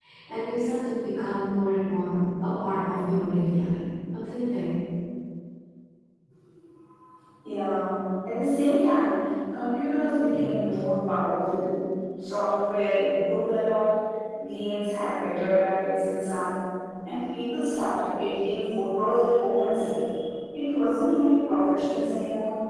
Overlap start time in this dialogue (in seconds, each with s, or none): none